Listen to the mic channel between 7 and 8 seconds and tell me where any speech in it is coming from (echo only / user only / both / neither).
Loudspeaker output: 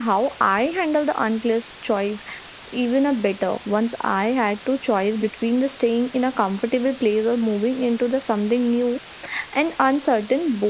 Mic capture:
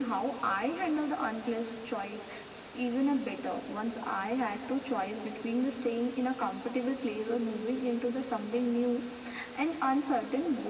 echo only